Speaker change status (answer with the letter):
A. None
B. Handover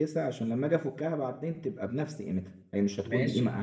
B